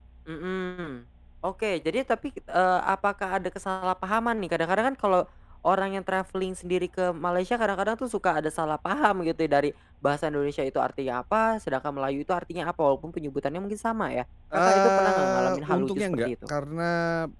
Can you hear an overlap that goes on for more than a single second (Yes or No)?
Yes